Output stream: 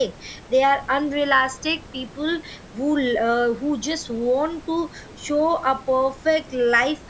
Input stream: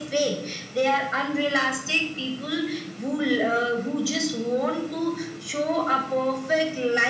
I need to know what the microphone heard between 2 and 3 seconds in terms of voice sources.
echo only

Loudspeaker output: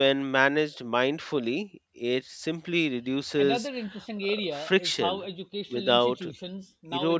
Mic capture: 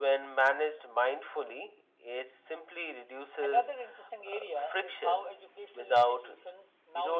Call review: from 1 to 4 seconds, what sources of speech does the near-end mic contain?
echo only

